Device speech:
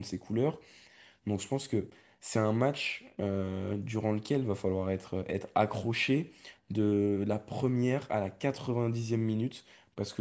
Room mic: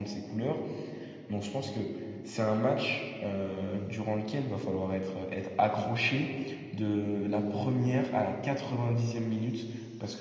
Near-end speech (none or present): none